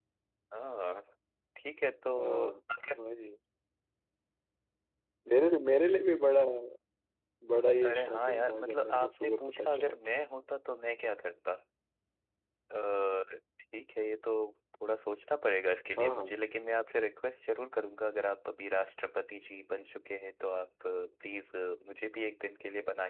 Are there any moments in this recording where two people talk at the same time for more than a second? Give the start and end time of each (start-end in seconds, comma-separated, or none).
7.8-10.0